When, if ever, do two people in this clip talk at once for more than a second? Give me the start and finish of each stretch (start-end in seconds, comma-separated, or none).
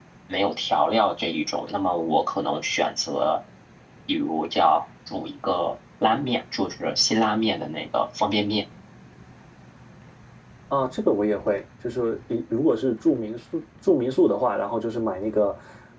none